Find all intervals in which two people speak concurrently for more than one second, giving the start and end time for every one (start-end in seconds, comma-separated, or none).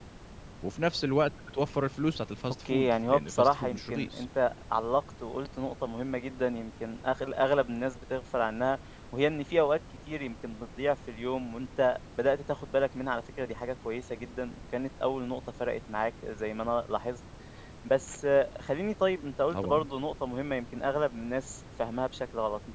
2.7-4.2